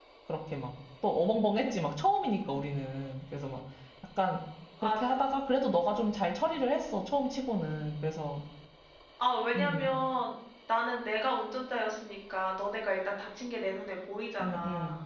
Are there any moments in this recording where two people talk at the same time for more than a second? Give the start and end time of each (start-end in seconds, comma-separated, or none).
none